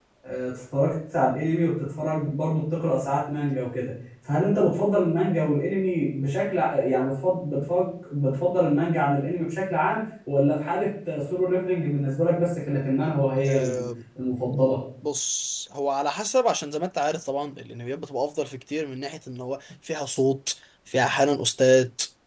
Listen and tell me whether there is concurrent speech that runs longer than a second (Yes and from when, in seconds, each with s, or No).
No